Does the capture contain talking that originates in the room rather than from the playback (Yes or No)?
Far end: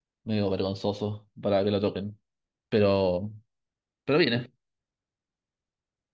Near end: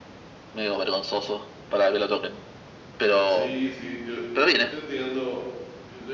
Yes